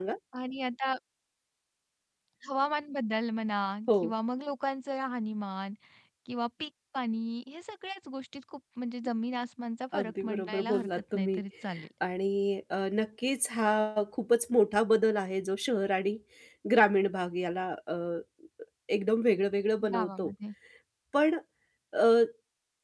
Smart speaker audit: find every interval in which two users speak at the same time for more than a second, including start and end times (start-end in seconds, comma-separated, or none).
10.0-11.4